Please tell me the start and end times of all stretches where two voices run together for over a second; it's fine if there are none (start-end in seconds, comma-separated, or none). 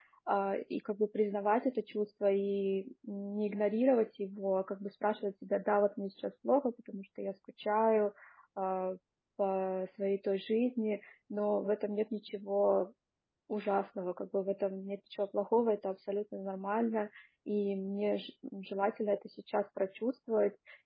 none